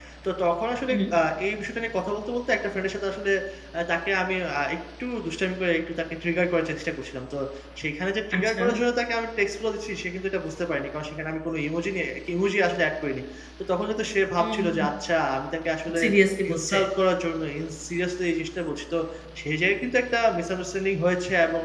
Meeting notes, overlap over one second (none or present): none